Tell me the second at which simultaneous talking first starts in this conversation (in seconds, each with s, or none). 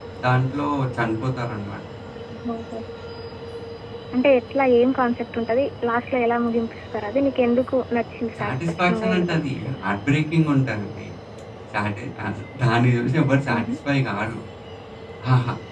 8.4 s